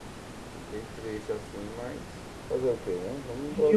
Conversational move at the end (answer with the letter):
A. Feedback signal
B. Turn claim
B